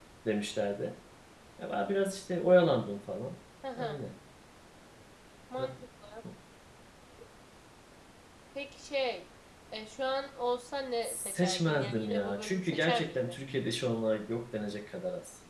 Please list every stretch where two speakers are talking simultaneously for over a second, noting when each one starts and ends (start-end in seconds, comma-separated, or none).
11.0-13.3